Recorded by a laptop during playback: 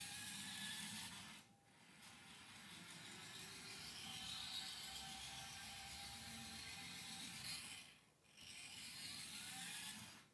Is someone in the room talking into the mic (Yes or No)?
No